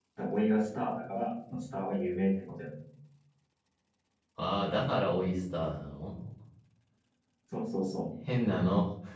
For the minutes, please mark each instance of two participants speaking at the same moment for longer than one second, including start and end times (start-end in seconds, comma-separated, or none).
none